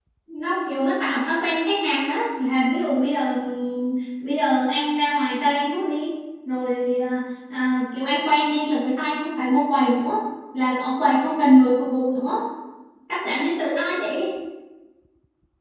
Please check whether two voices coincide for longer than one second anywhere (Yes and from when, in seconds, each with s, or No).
No